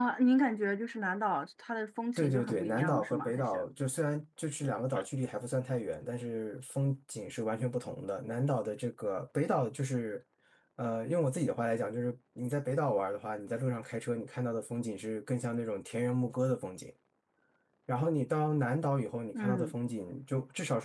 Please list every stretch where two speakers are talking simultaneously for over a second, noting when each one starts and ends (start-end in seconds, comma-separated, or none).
2.2-3.6